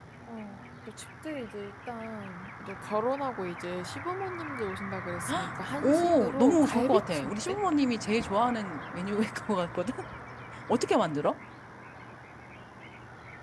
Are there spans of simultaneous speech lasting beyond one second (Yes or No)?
Yes